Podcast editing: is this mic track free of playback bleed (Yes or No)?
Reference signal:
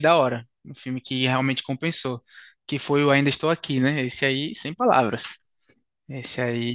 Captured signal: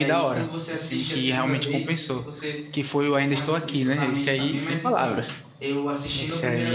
No